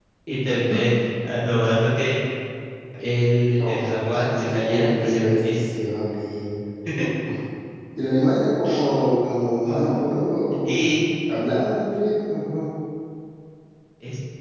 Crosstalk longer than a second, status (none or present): present